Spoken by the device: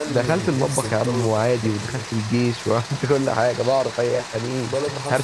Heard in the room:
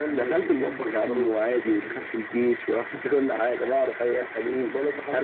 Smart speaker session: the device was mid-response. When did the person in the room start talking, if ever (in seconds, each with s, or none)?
none